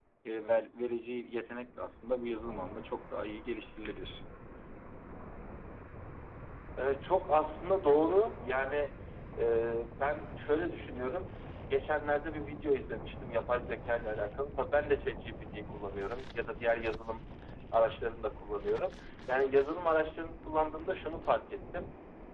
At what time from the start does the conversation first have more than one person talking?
none

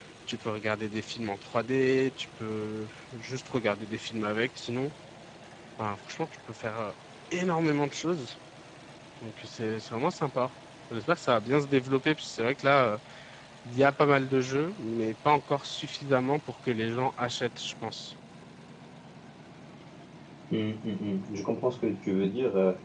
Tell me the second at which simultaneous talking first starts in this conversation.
none

